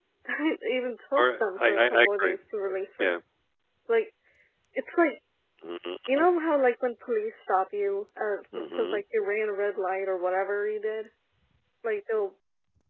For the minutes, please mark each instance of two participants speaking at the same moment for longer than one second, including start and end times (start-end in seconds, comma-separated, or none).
1.2-2.4